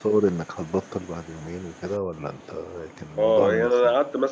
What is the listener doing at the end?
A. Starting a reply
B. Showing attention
A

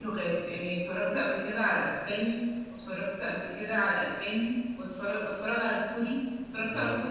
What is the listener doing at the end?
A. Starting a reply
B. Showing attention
A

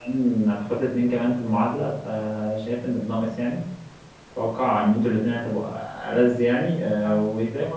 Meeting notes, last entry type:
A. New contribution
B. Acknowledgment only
B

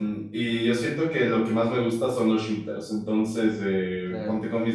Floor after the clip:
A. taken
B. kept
B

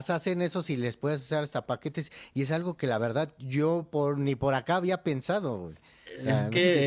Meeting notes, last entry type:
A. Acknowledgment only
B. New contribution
B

